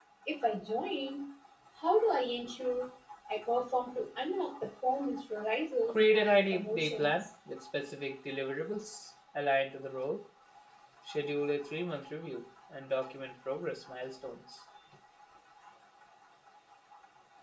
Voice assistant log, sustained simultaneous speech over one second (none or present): present